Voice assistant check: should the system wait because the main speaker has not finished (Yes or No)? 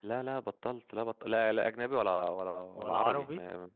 Yes